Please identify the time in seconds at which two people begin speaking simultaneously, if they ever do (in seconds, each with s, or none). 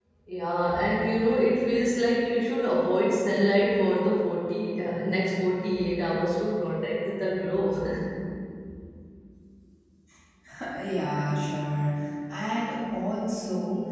none